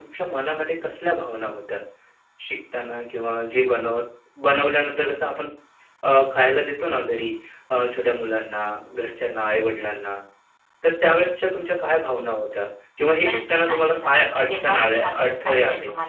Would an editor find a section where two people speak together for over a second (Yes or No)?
Yes